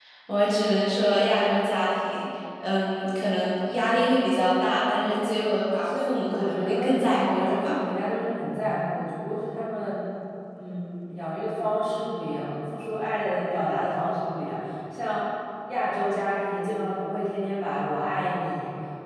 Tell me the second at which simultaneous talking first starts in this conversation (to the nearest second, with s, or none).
6 s